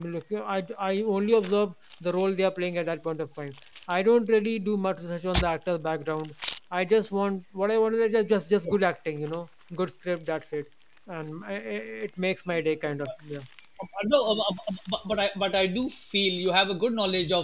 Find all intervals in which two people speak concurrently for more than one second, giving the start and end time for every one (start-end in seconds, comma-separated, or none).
none